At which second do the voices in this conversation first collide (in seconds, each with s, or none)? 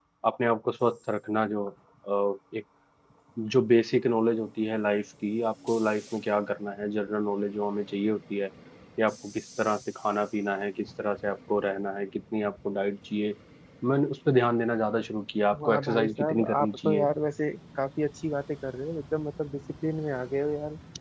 15.5 s